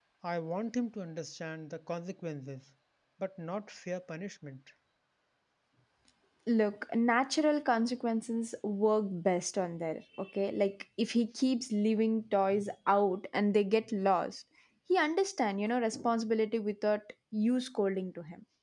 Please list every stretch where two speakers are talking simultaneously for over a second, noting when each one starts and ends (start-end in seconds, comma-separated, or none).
none